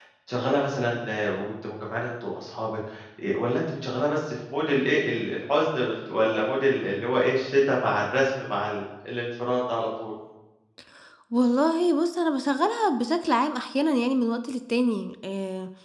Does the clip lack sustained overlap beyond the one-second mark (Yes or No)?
Yes